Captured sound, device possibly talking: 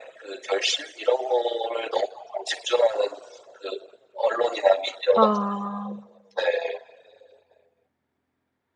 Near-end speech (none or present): present